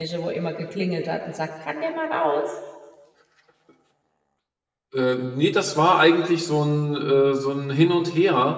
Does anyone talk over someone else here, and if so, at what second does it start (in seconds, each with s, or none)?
none